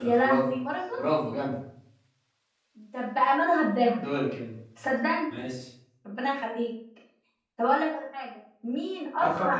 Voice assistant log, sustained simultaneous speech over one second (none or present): none